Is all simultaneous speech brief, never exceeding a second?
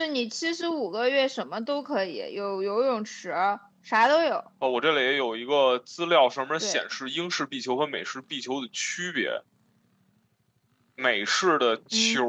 Yes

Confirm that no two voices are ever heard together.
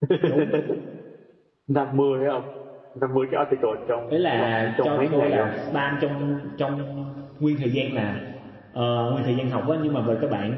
No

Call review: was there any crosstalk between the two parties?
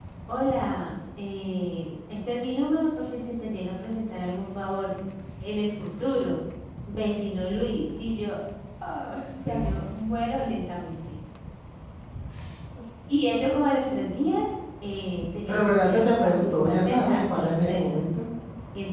Yes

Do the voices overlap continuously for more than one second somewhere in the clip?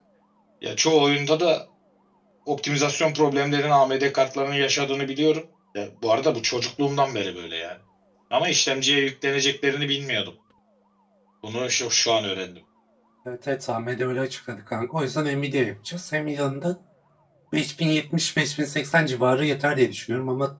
No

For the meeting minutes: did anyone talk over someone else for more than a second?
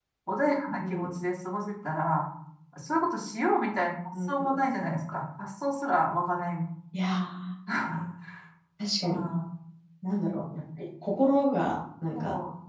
No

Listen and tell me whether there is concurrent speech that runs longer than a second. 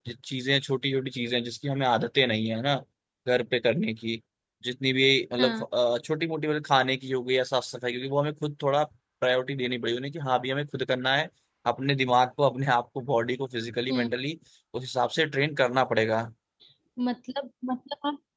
No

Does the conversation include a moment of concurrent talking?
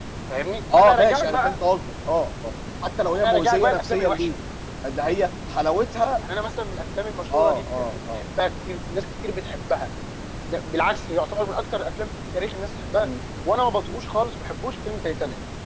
Yes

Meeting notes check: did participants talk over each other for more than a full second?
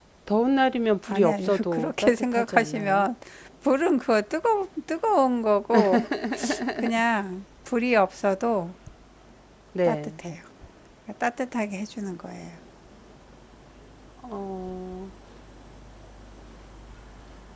Yes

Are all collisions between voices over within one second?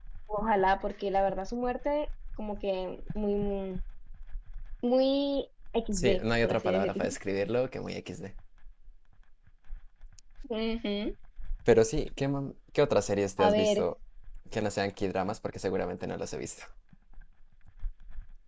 No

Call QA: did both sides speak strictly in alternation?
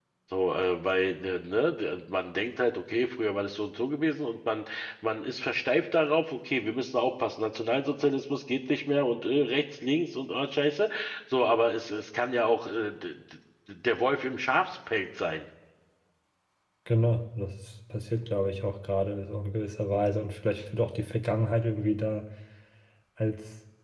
Yes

